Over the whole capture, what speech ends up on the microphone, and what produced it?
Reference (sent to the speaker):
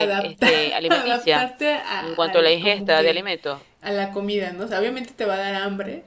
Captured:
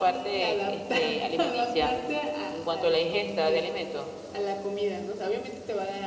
echo only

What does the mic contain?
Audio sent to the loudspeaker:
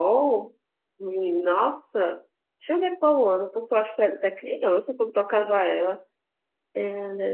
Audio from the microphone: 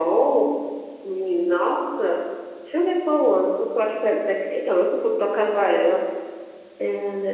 echo only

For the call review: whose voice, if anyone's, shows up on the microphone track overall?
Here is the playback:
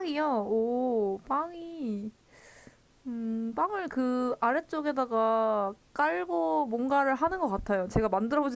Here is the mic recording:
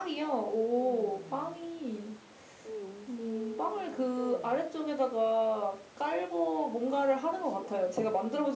both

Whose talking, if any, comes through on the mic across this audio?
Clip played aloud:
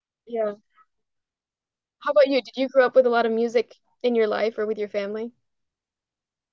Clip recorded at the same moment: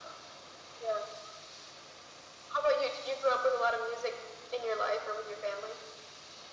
echo only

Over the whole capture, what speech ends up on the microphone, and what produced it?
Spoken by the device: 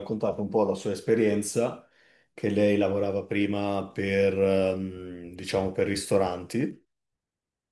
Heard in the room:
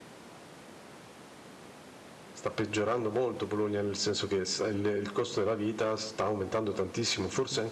user only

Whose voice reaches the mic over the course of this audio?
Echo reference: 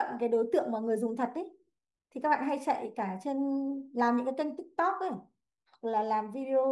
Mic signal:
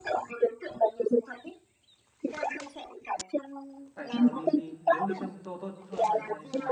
both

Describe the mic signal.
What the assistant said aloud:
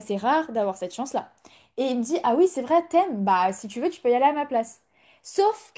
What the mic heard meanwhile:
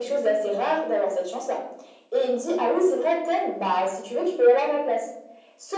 echo only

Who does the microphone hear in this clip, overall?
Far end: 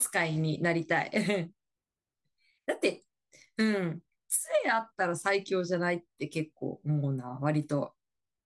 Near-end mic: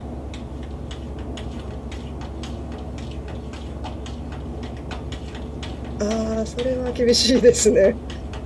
user only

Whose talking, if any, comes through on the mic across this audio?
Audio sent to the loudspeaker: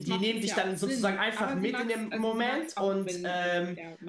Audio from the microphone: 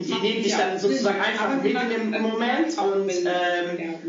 echo only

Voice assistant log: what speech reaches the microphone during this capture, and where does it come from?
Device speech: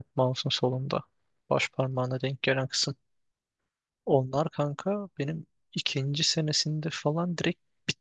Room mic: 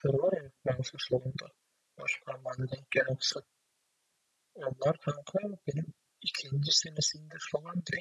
echo only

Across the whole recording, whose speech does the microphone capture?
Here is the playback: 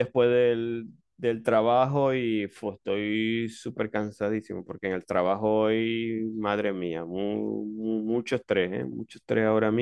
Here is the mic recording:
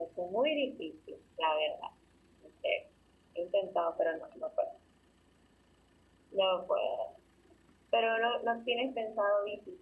user only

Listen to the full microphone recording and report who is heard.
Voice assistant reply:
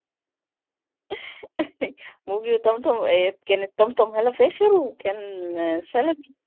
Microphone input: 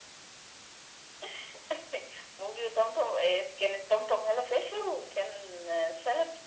echo only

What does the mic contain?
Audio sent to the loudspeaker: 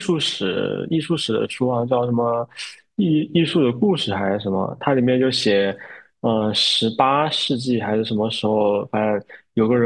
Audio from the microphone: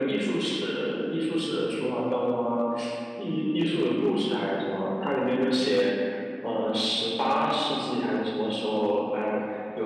echo only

